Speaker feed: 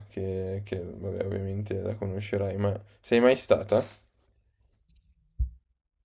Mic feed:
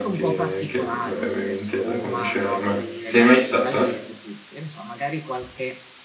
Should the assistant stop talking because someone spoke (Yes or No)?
Yes